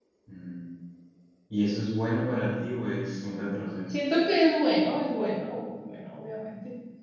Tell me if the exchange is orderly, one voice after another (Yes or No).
Yes